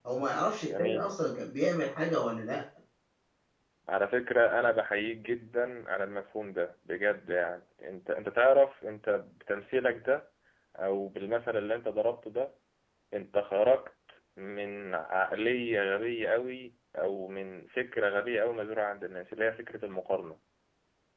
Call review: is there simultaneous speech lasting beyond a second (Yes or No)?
No